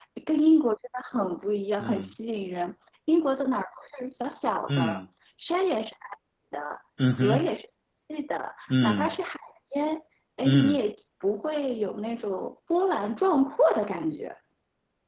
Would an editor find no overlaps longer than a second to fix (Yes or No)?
Yes